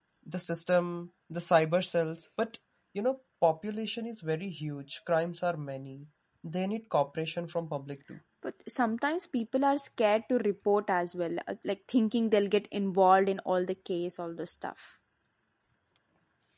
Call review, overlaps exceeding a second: none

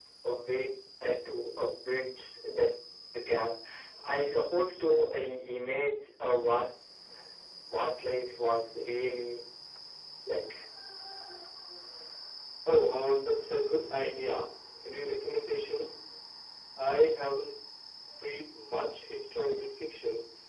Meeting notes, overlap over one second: none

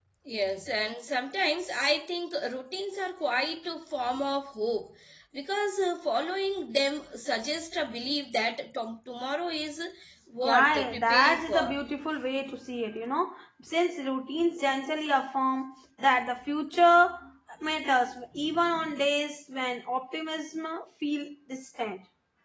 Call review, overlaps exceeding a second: present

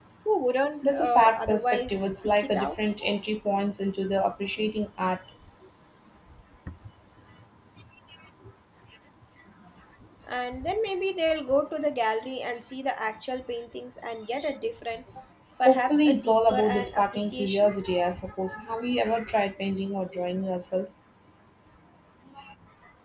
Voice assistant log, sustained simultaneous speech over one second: present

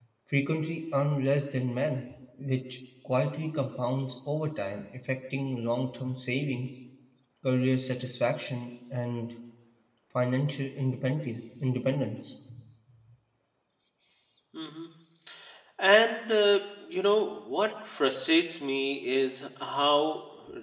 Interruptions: none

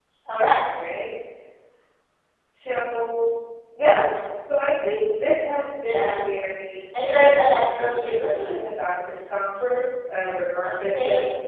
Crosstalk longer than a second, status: present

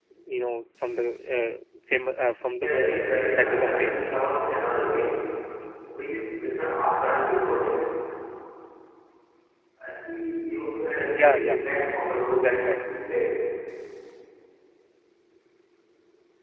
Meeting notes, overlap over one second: present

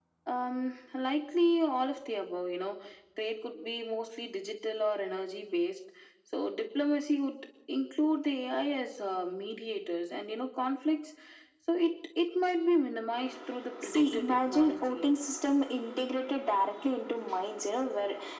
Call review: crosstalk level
present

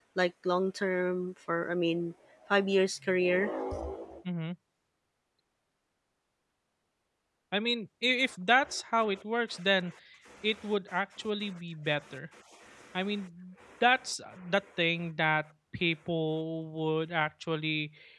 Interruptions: none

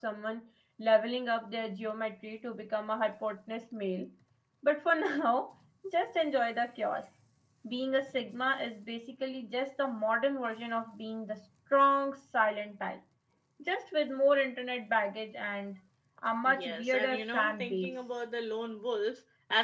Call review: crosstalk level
present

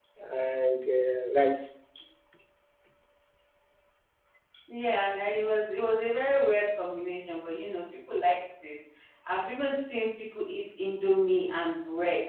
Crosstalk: none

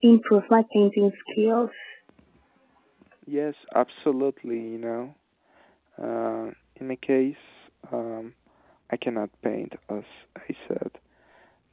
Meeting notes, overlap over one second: none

